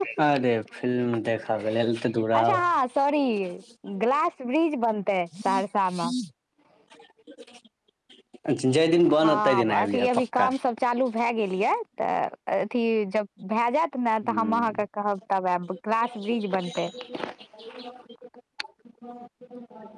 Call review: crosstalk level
present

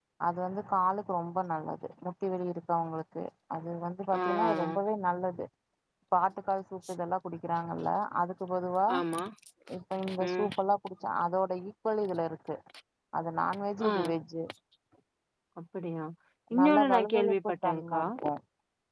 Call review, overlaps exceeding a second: present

